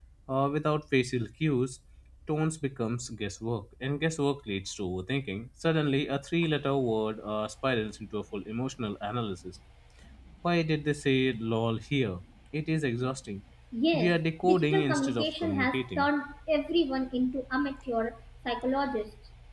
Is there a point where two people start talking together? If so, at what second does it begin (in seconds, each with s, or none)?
13.9 s